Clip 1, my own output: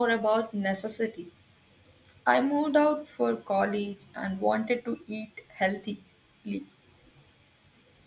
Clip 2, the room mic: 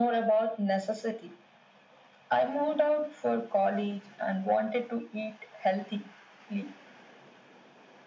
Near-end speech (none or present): none